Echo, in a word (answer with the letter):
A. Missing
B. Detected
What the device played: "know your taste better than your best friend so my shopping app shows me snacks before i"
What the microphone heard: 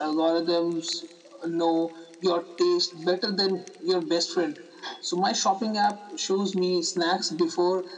B